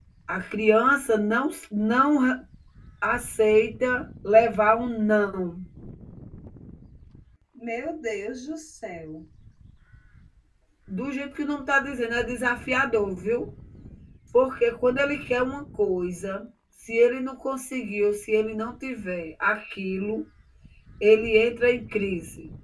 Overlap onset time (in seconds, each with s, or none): none